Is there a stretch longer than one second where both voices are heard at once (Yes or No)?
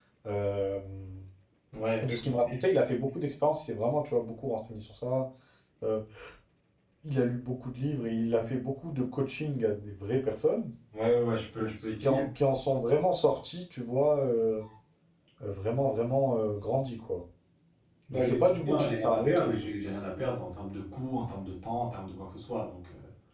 Yes